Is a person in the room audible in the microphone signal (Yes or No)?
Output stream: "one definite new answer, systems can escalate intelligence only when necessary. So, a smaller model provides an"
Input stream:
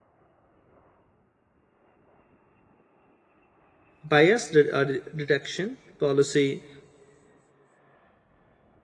Yes